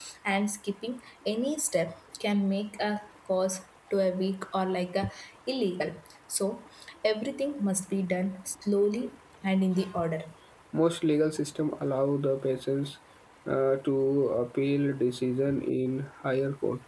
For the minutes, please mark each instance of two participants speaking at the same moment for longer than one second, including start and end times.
none

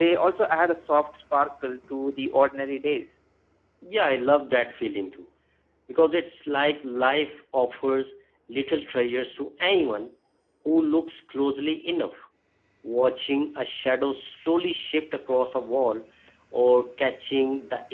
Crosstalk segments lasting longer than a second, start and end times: none

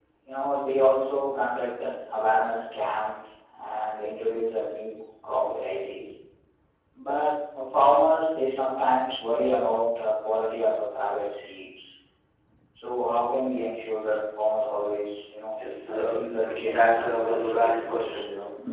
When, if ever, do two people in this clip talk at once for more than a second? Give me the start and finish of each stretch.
16.8-18.1

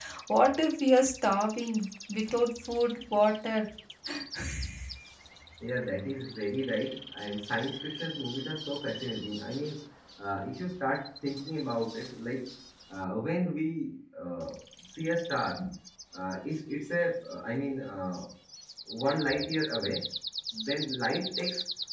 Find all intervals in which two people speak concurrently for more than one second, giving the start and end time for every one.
none

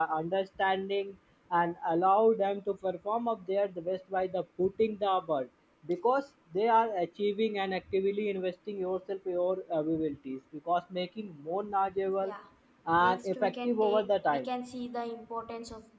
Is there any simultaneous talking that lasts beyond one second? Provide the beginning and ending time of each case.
13.0-14.5

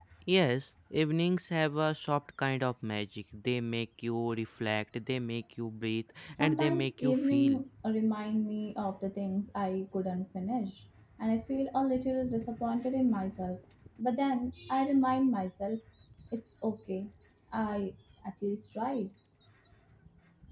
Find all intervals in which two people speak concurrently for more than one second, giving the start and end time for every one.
6.4-7.6

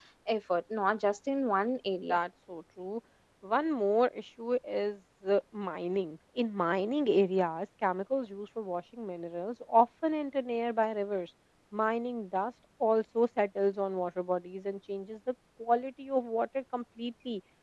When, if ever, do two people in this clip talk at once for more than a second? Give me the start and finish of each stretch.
none

